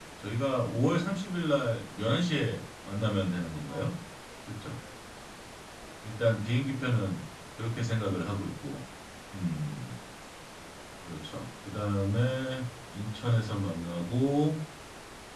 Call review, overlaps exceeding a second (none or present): none